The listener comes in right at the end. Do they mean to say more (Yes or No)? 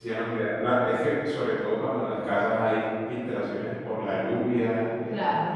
No